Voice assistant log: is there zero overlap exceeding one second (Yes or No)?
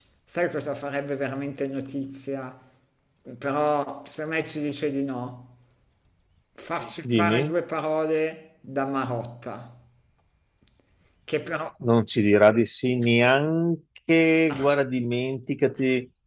Yes